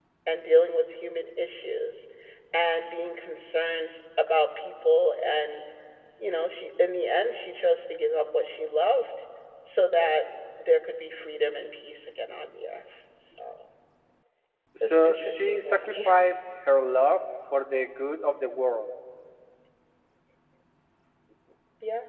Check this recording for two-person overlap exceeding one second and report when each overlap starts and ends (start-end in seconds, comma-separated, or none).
14.8-16.1